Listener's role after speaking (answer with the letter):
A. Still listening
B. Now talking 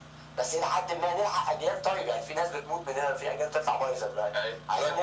B